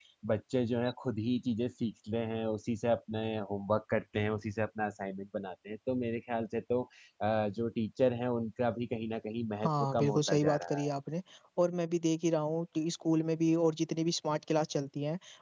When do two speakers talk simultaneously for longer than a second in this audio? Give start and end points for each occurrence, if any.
9.6-10.9

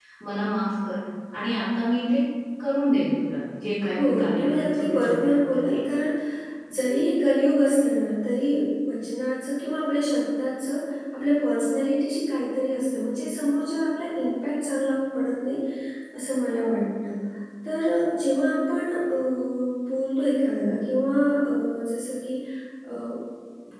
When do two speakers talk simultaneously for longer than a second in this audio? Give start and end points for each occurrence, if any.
3.9-5.8

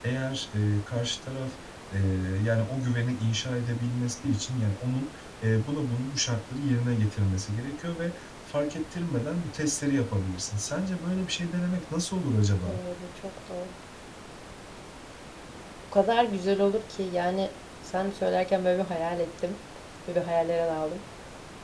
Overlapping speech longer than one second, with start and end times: none

